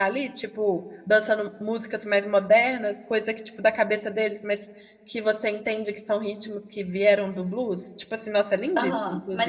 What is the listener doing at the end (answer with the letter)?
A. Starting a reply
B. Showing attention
A